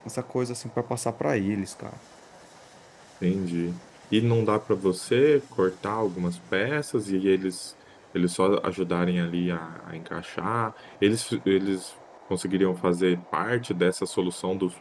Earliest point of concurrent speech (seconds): none

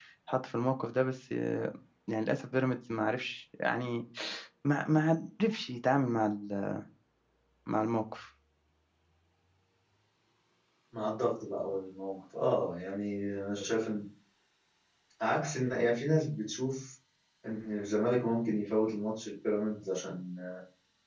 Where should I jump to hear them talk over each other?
none

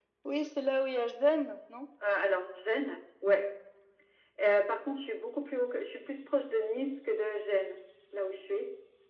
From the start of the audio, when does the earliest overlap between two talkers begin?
none

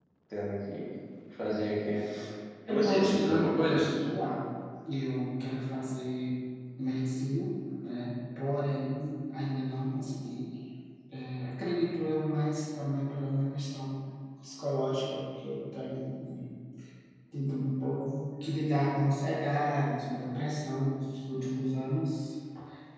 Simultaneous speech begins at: 2.7 s

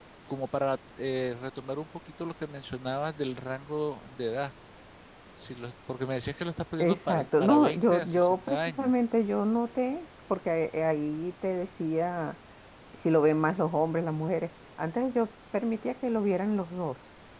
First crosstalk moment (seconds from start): 6.8 s

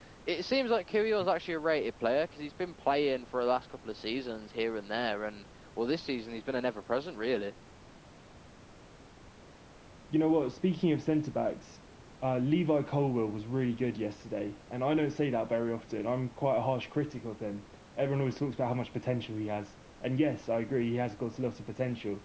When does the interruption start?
none

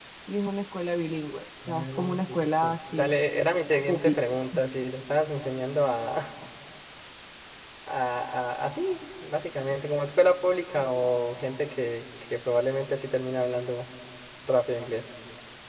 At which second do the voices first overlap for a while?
1.7 s

